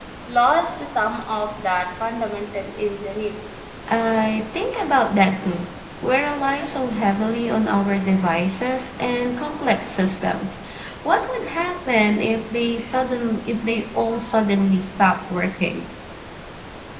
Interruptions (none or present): none